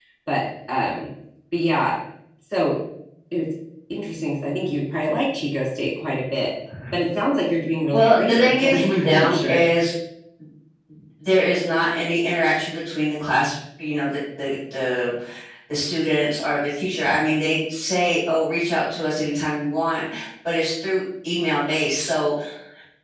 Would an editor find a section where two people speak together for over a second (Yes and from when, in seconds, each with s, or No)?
Yes, from 7.9 s